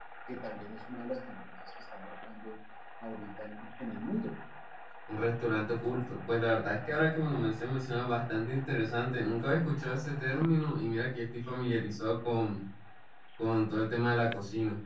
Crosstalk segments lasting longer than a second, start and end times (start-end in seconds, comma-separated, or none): none